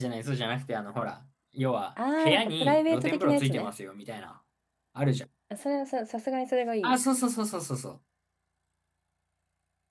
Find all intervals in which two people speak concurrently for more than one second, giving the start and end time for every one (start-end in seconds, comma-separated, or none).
2.2-3.7